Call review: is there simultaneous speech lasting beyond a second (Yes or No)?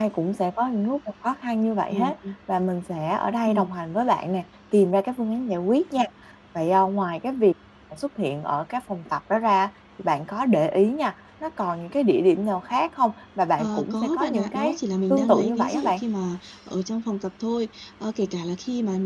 Yes